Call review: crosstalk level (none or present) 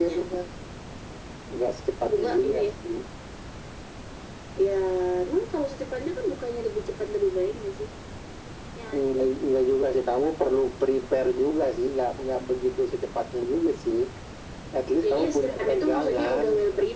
present